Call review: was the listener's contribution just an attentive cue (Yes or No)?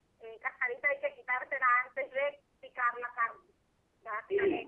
No